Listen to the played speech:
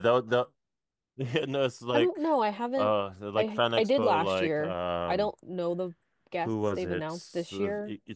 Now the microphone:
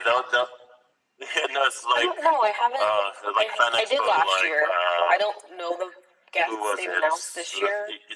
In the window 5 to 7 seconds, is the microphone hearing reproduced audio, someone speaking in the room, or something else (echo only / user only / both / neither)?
echo only